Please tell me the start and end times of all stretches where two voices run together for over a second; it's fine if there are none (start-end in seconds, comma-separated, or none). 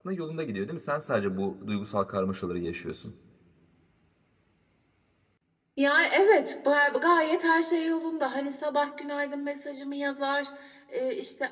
none